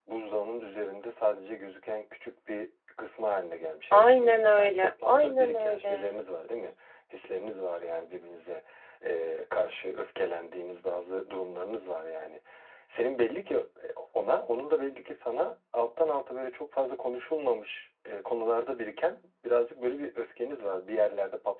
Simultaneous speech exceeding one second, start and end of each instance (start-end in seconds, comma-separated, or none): 3.9-6.1